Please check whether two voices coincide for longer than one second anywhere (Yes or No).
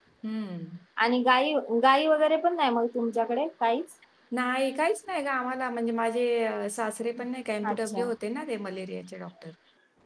No